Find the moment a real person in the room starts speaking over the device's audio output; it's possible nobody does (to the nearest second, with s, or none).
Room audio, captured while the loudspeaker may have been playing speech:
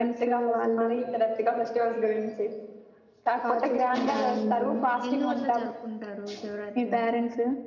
5 s